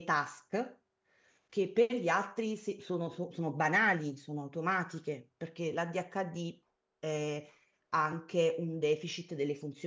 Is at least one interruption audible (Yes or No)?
No